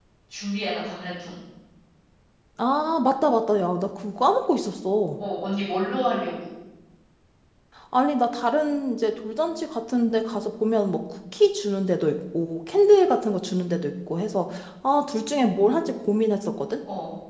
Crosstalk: none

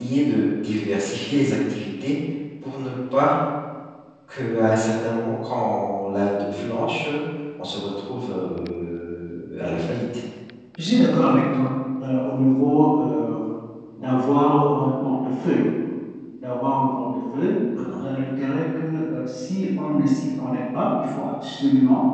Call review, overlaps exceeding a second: none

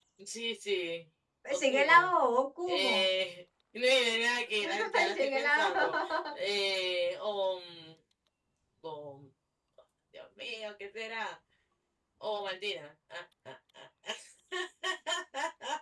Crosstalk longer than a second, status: present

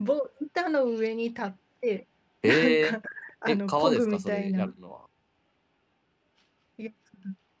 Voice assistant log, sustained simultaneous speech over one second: present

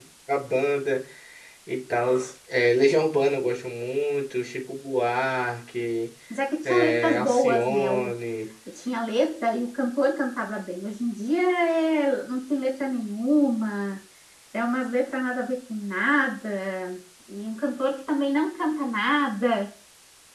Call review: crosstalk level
present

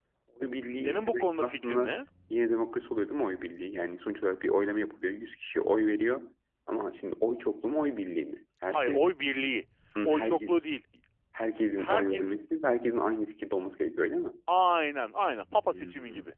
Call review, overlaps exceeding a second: present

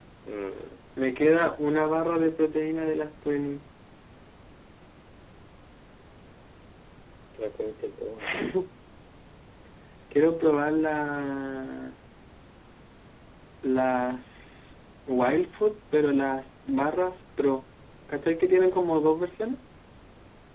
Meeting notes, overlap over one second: none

